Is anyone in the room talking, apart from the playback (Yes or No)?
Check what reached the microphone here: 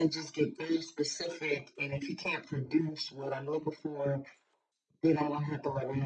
No